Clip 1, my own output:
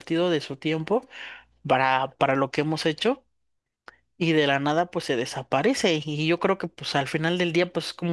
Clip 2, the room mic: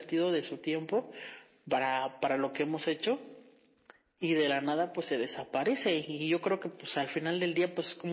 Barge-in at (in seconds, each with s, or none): none